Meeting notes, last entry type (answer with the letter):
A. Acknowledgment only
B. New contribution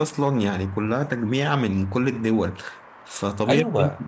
A